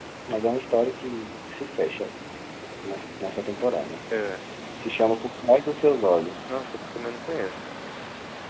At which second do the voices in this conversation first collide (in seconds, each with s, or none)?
none